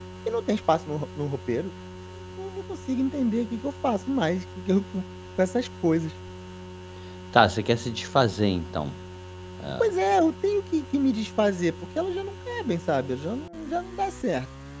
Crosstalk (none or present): none